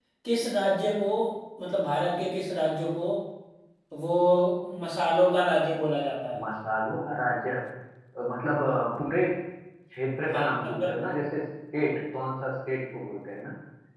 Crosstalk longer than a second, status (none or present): none